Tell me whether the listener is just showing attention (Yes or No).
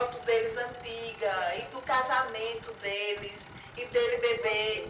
Yes